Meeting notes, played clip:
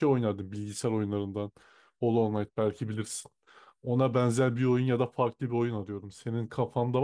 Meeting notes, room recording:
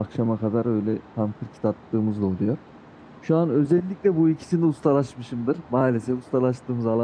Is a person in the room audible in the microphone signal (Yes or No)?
Yes